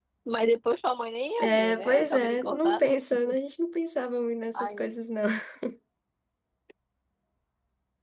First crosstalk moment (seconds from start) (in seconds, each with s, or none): 1.4 s